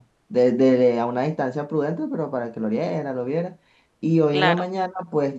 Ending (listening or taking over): listening